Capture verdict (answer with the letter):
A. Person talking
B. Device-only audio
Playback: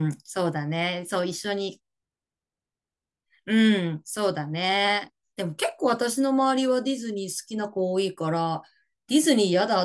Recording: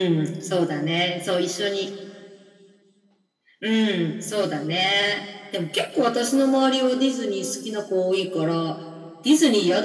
B